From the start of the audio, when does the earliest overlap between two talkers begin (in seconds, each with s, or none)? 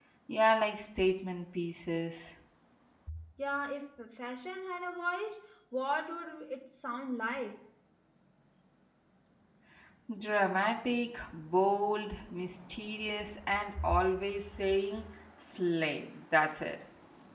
none